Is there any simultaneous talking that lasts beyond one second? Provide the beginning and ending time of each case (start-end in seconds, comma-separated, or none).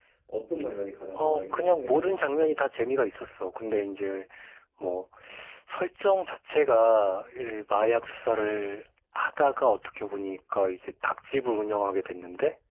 1.1-2.5